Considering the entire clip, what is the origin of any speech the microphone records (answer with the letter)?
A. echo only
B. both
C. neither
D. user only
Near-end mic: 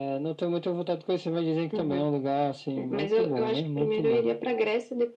A